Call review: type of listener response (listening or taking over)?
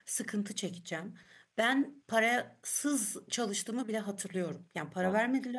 listening